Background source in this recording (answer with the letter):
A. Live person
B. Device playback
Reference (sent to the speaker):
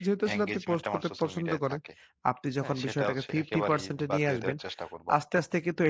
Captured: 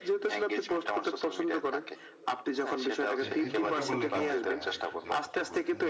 A